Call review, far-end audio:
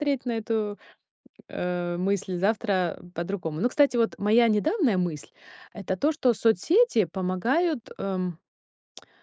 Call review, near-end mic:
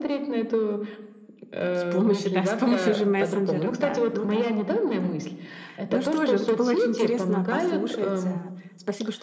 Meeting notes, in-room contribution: present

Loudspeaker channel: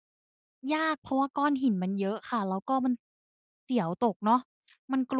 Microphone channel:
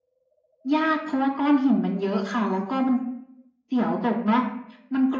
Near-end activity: none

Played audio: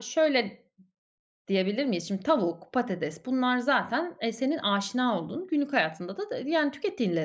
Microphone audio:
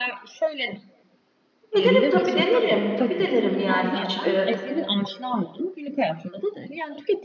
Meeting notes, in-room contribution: present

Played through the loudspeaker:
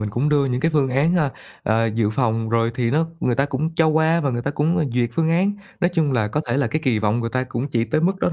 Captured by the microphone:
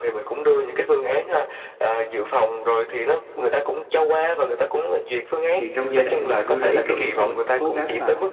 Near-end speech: present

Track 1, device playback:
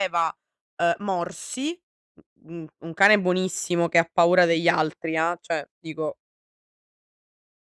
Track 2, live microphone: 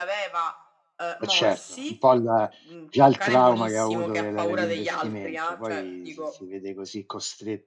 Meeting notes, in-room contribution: present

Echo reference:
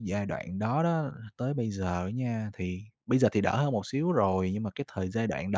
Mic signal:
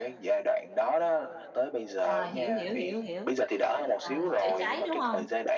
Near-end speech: present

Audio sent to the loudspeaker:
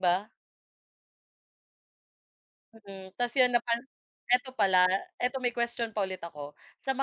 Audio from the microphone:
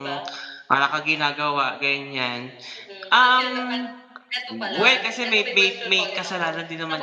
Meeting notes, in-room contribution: present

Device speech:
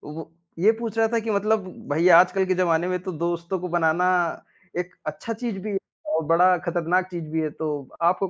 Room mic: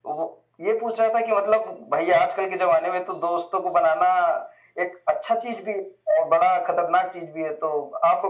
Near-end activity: none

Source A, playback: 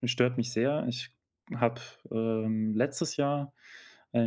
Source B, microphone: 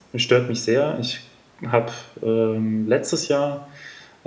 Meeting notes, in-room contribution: none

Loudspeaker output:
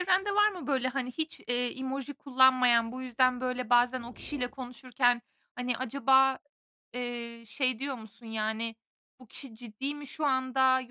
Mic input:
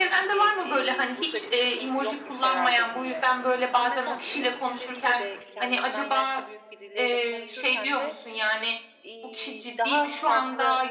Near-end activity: present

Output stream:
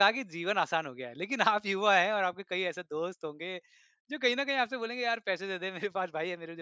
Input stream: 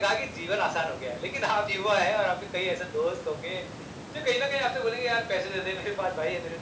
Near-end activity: none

